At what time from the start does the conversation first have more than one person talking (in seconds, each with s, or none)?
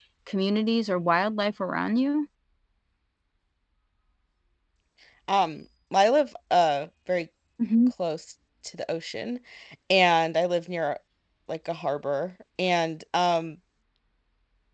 none